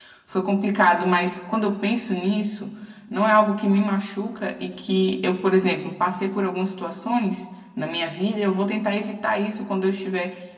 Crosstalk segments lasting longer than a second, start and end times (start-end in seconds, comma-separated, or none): none